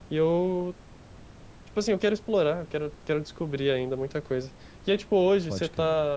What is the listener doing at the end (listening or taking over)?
listening